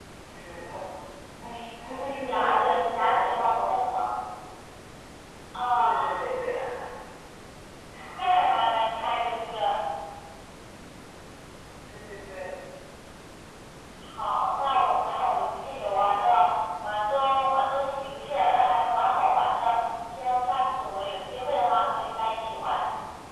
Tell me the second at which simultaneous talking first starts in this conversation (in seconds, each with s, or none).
2.2 s